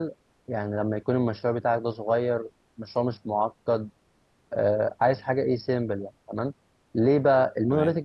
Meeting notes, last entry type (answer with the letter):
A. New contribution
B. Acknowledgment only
B